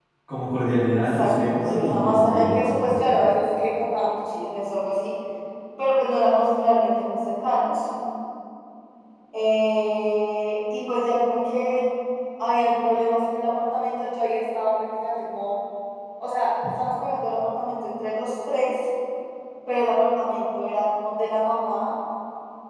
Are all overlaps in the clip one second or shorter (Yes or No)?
No